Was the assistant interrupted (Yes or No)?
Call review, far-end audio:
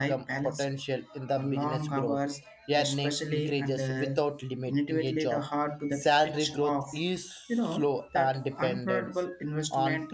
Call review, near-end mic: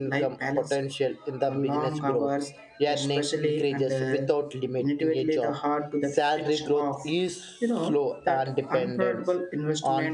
No